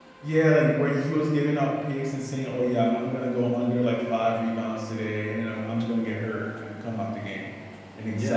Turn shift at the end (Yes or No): Yes